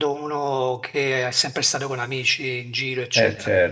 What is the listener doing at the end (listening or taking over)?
taking over